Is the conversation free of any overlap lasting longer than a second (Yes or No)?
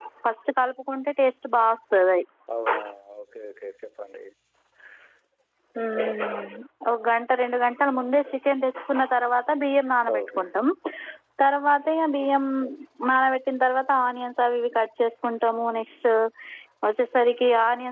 Yes